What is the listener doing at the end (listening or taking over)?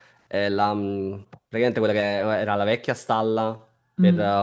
listening